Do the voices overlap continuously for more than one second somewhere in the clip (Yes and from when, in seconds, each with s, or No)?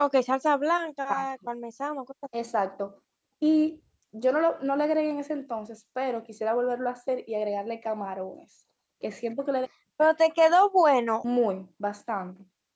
No